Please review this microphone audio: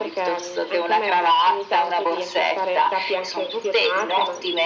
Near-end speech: none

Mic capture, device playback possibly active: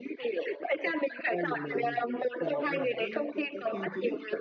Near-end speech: present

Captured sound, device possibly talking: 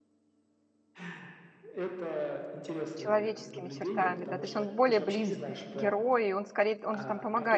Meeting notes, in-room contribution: present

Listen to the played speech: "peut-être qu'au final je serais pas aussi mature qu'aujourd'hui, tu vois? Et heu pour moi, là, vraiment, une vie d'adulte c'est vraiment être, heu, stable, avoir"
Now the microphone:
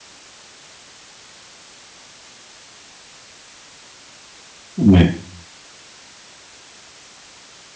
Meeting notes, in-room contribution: present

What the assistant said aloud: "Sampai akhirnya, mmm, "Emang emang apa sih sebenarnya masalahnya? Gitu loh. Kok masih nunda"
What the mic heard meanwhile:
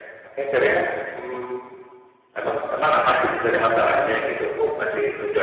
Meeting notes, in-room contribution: none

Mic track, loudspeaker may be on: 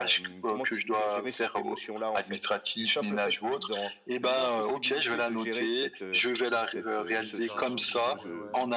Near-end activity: present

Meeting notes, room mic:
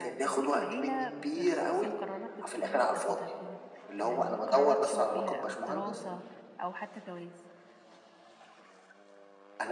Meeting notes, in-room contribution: present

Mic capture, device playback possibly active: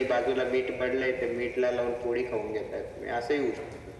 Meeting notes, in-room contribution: none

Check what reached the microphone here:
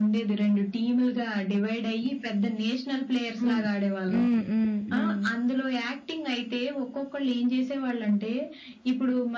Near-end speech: present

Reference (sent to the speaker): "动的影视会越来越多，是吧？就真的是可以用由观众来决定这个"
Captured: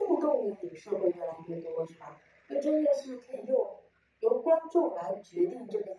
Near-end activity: none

